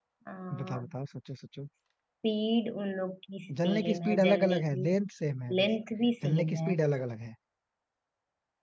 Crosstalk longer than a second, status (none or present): present